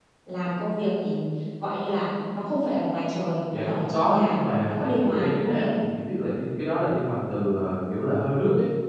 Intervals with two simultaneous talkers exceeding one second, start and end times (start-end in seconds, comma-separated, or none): 3.5-5.7